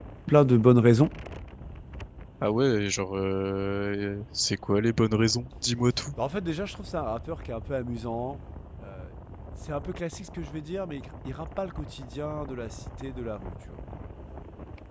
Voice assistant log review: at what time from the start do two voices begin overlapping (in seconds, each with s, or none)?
none